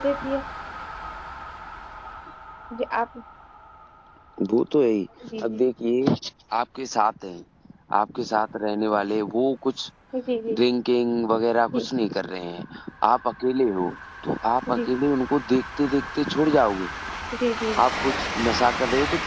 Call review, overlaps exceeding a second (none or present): none